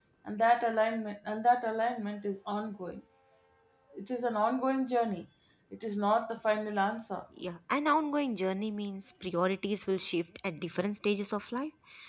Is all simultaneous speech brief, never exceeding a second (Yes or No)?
Yes